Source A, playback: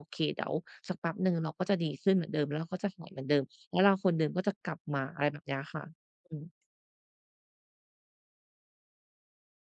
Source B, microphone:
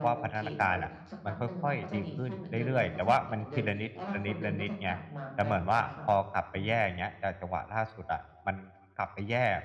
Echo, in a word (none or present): present